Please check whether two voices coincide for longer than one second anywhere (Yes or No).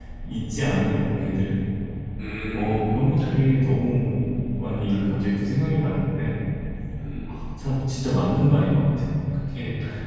No